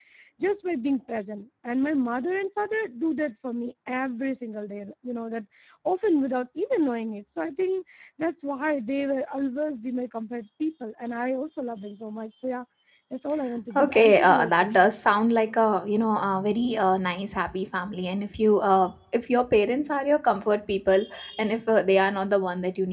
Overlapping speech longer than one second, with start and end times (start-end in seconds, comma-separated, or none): 13.8-15.0